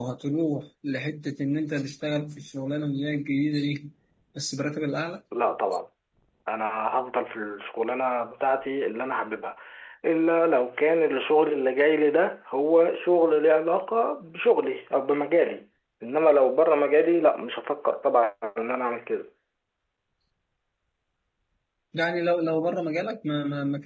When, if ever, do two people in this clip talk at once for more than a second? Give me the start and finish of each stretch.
none

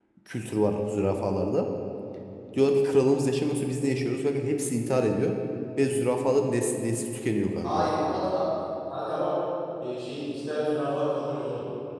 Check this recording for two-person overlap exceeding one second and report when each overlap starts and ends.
none

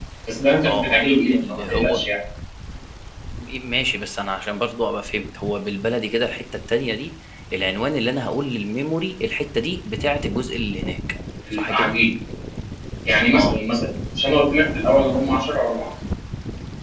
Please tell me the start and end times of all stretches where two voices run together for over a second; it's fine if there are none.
0.7-2.0

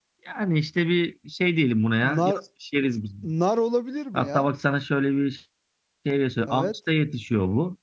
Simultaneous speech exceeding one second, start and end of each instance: none

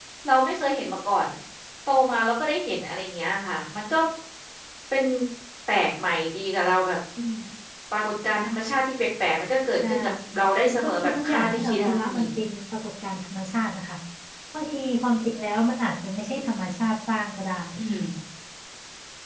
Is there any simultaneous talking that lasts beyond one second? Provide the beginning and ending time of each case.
10.7-12.3

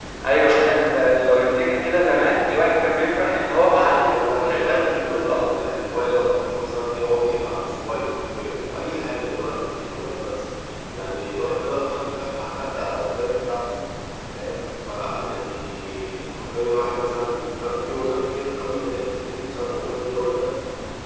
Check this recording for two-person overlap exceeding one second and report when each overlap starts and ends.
3.6-5.6

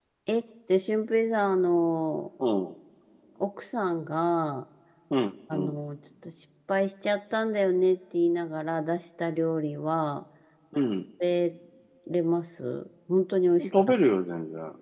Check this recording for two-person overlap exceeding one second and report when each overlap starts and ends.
none

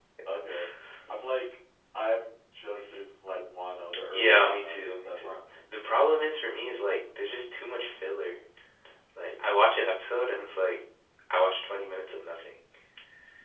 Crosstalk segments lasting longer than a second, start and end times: 4.1-5.3

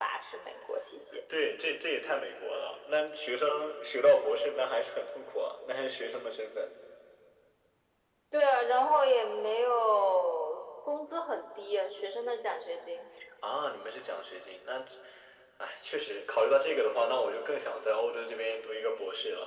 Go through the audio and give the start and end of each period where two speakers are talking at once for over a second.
none

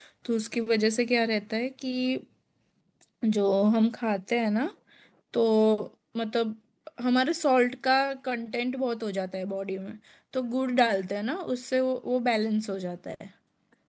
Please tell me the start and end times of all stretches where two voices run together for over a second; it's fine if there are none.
none

